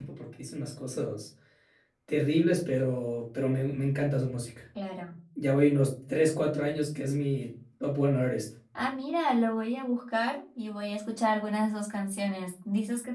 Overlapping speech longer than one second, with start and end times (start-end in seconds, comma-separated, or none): none